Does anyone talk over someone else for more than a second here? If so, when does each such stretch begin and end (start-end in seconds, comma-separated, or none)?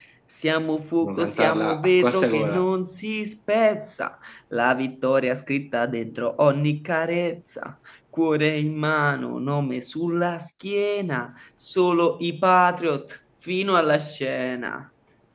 1.0-2.6